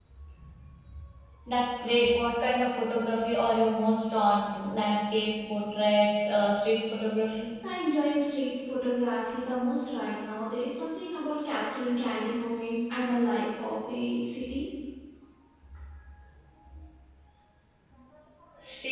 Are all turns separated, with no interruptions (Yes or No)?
Yes